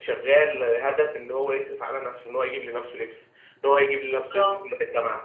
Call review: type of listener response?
listening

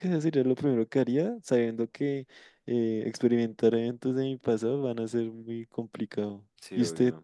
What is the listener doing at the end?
listening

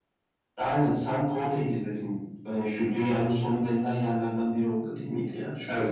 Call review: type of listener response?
taking over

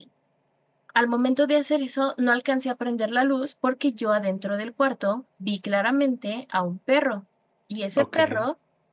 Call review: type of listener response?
listening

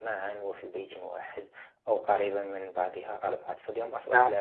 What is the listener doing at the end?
listening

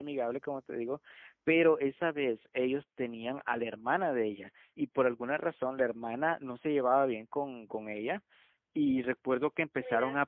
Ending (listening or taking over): listening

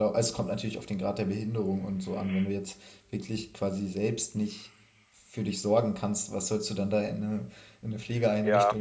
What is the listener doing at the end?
taking over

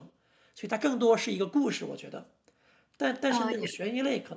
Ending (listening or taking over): listening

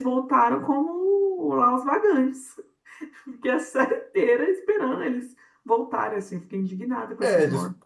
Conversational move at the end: taking over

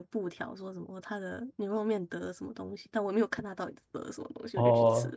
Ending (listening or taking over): taking over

